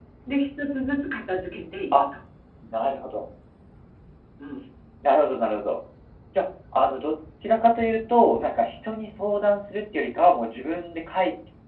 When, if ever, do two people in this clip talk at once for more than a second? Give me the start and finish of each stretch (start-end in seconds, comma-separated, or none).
none